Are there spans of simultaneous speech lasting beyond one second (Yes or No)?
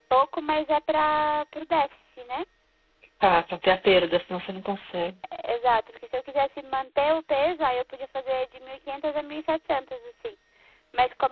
No